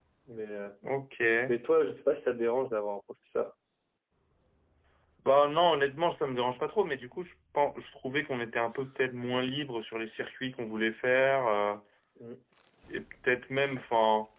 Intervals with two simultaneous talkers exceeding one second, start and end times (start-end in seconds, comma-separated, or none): none